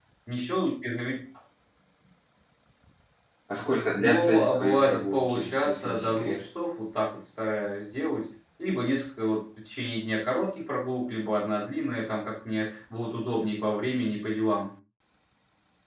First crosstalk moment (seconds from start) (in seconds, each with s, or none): 4.0 s